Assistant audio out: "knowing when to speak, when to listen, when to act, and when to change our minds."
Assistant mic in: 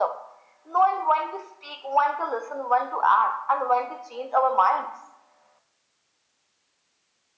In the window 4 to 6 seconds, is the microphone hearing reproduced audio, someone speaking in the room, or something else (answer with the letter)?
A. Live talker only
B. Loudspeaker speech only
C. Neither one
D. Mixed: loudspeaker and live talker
B